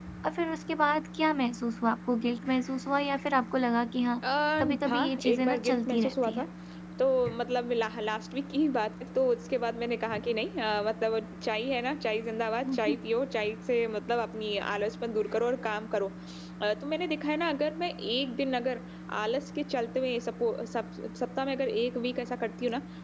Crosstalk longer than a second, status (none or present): present